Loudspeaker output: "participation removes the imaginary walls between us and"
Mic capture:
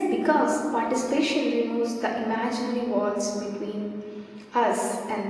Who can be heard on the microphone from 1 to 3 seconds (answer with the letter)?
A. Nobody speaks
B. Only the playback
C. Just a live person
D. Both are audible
B